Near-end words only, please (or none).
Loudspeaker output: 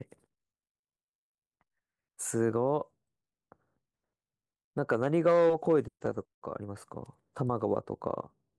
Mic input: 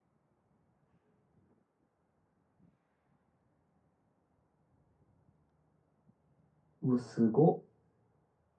うわ、すごっ。